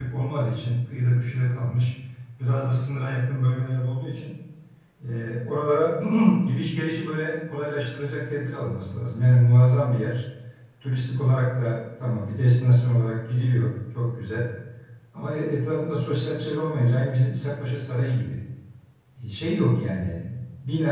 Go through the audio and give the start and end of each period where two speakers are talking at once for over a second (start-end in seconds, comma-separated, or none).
none